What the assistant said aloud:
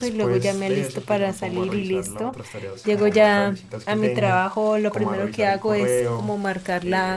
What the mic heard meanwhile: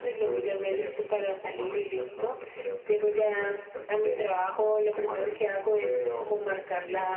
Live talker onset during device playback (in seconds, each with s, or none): none